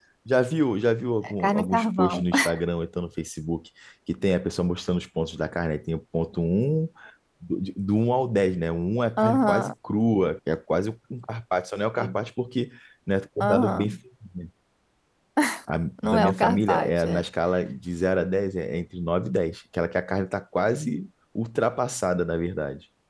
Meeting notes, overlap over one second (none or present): present